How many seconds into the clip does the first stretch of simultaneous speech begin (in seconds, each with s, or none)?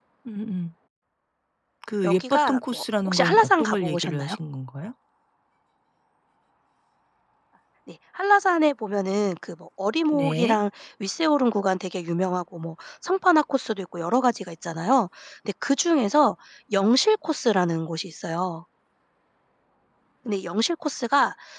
2.0 s